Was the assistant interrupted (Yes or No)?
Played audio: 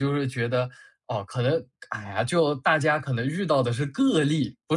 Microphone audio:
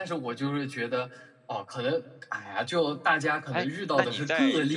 Yes